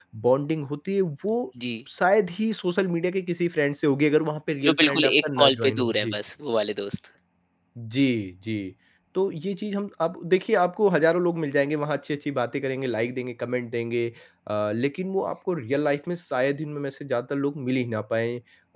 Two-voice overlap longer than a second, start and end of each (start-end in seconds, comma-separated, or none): 4.7-6.2